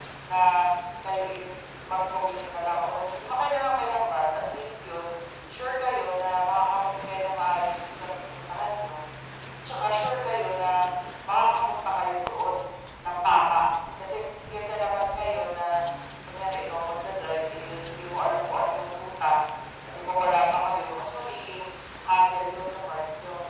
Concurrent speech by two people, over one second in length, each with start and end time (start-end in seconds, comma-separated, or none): none